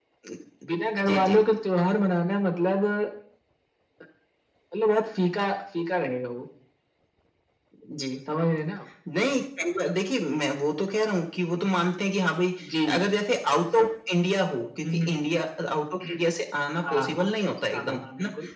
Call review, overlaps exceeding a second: none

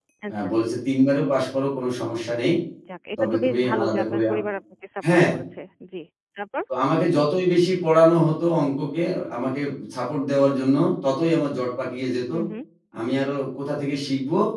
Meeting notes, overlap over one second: present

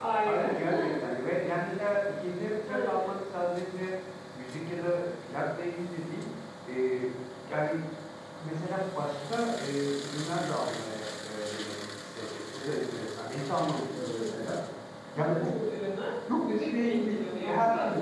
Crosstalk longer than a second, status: present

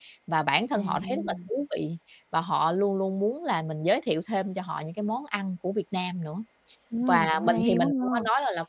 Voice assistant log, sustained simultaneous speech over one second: present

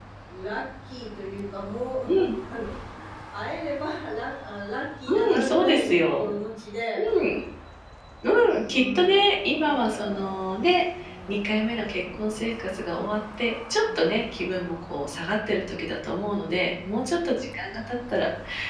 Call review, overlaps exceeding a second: present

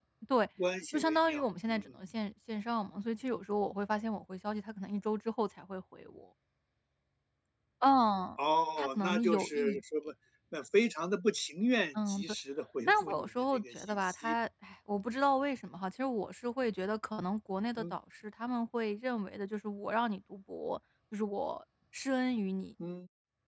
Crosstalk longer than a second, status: present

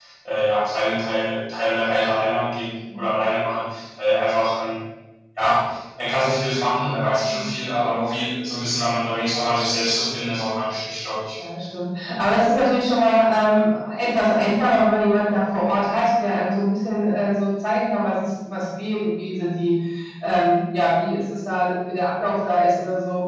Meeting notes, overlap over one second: none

